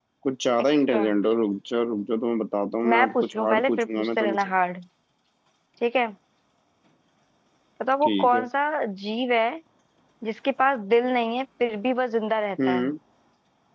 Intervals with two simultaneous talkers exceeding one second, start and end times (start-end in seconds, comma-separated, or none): 2.9-4.5